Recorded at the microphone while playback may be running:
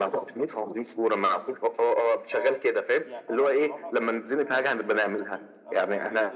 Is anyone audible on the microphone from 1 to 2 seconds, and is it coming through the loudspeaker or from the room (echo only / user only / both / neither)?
echo only